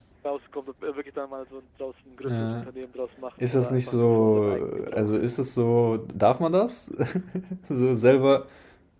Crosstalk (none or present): present